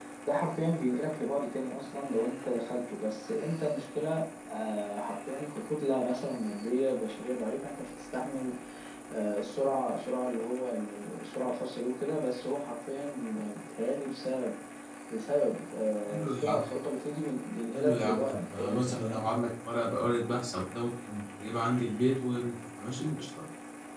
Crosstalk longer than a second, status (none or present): present